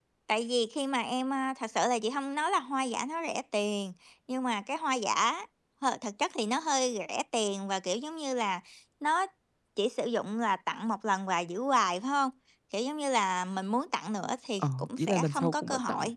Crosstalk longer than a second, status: present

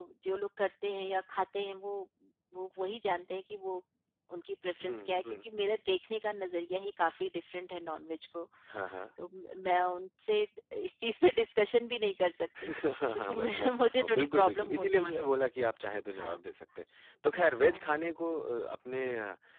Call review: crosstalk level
present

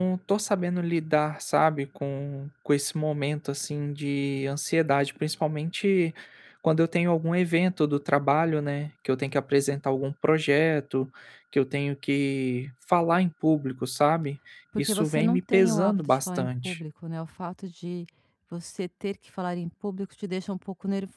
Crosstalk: present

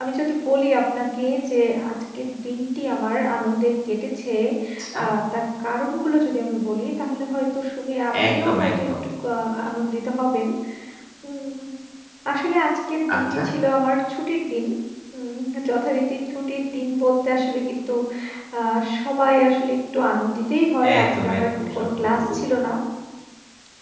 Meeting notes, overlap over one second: present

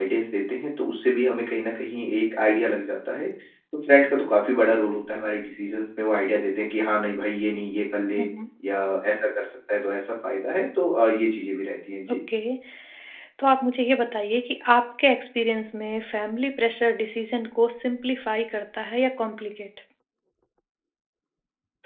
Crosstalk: none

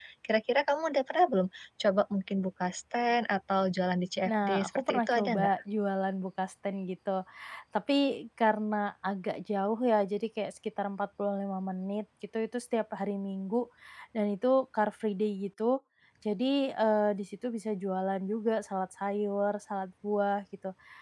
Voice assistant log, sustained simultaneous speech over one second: present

